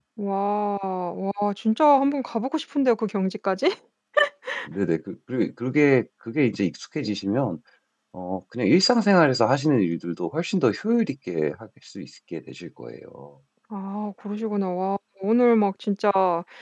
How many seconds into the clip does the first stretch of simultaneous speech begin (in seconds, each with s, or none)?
none